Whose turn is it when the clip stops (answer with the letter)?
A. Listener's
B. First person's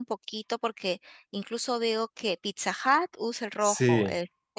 B